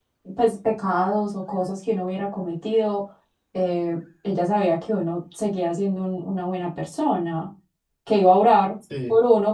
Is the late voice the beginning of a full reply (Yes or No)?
No